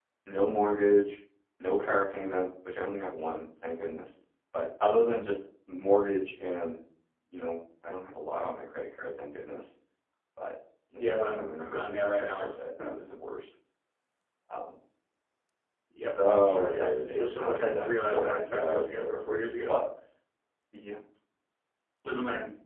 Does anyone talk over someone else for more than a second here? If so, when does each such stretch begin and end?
11.0-12.5, 16.1-18.8

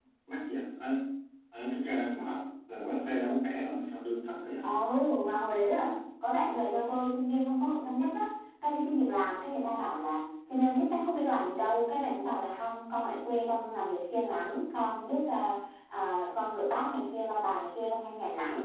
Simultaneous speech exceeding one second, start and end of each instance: none

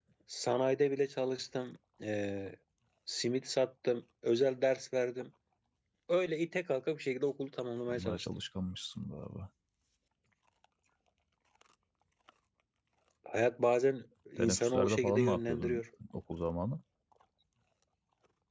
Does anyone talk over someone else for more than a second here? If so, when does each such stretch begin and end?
14.4-15.8

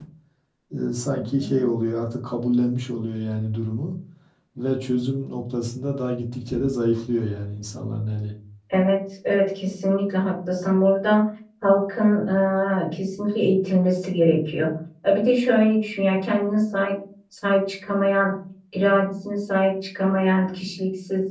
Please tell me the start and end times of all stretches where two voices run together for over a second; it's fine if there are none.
none

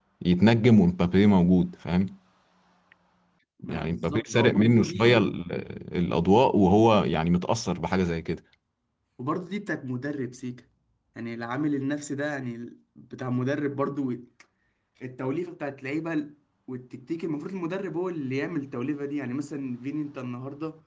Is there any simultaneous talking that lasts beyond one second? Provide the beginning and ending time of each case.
3.7-5.2

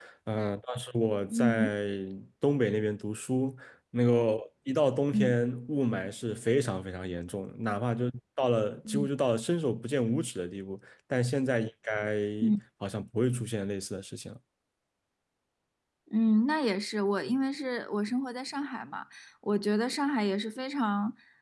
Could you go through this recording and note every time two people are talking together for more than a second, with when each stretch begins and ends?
none

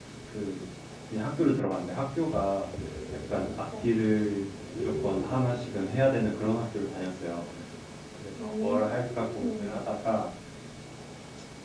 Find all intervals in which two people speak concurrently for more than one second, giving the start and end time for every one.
8.4-9.9

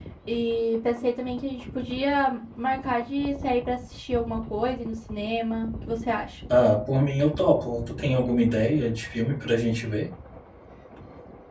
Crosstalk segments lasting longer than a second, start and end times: none

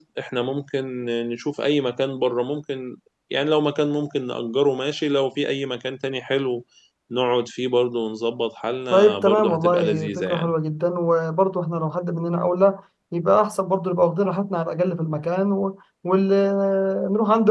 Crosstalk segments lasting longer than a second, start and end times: 8.9-10.5

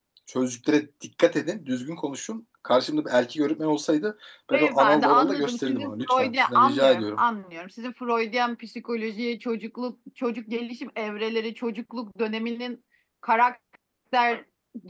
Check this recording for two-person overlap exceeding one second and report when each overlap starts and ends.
4.5-7.2

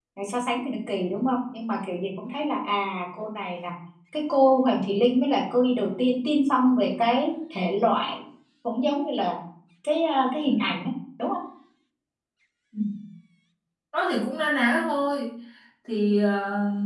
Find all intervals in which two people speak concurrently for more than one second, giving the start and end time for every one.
none

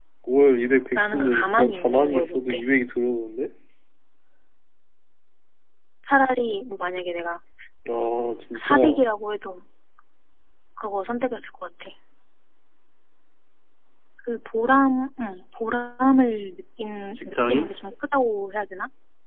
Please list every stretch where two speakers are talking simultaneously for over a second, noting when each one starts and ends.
1.0-2.6

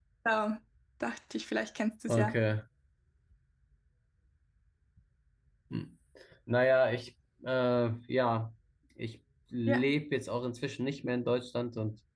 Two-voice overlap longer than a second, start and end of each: none

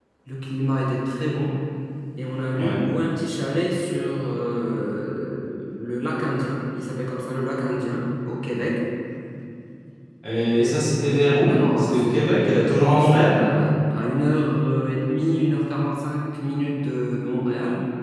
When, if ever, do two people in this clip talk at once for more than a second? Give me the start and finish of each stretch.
11.4-13.4

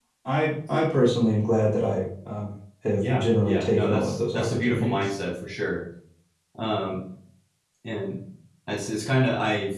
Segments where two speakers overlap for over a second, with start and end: 3.0-5.1

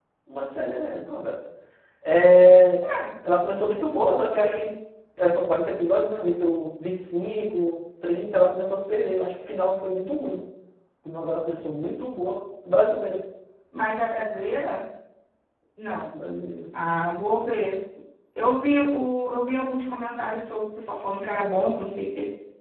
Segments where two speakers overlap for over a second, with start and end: none

